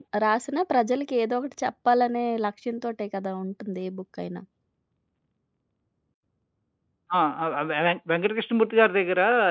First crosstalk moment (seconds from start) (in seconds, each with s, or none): none